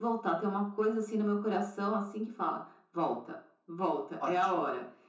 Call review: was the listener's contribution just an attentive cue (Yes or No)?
Yes